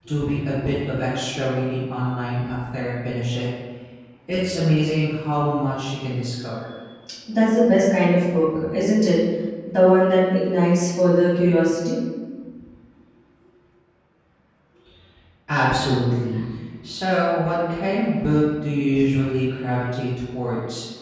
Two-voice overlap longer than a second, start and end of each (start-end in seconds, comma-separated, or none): none